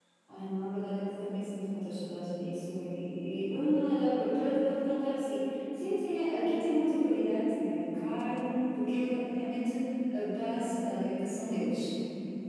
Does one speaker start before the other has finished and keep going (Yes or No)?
No